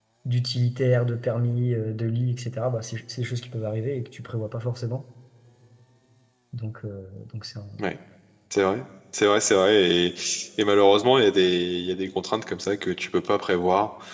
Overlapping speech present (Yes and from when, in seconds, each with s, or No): No